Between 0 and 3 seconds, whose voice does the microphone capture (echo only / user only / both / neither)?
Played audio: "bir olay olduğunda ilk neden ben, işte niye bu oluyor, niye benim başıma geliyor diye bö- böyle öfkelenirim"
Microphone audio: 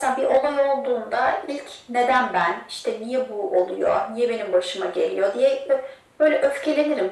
echo only